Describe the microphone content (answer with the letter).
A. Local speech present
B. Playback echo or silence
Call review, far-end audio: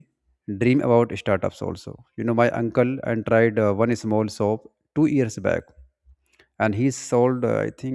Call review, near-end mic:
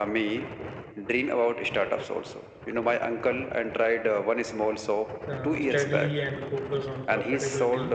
A